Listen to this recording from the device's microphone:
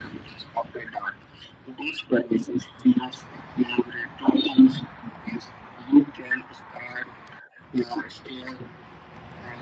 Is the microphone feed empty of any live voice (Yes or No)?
Yes